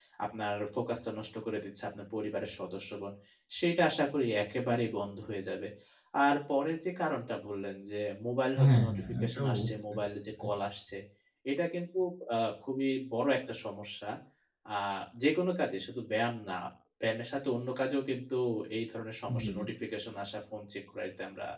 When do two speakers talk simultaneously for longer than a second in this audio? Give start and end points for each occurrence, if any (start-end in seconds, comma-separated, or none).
8.6-10.1